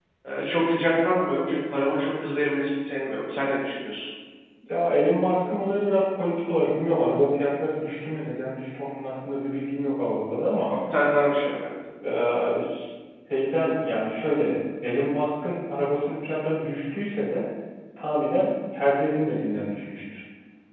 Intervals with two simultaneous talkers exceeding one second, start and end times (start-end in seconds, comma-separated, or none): none